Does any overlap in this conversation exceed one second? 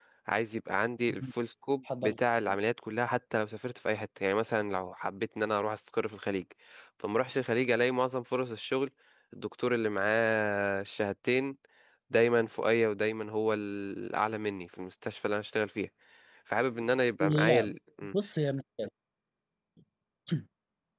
No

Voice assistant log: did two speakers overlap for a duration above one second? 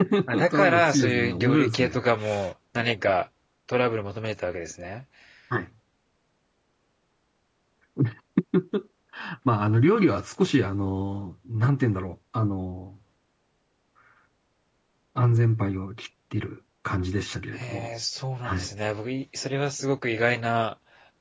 Yes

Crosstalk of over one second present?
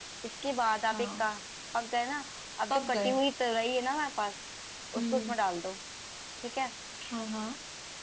No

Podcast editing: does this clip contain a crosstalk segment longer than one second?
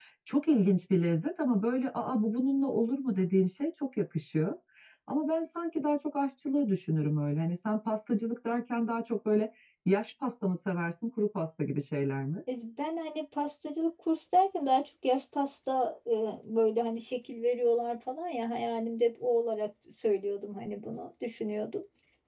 No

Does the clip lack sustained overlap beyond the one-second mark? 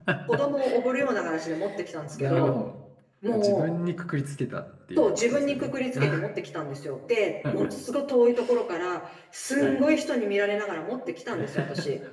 No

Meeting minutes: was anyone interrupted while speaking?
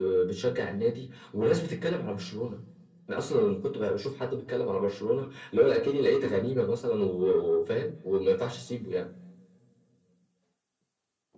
No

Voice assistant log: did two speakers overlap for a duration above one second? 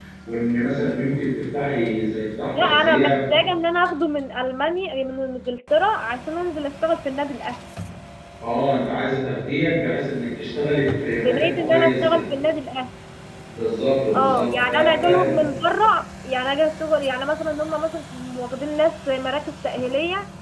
Yes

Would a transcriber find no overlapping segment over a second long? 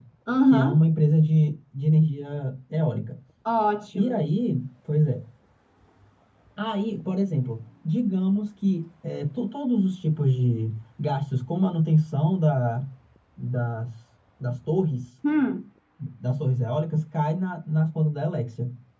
Yes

